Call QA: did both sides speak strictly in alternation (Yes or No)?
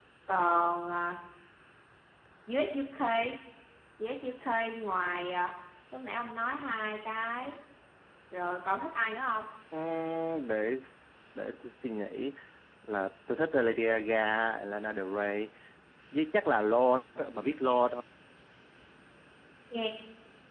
Yes